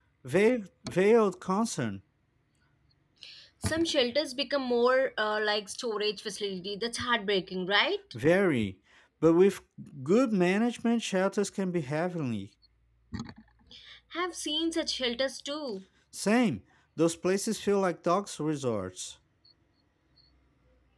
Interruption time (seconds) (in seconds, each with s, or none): none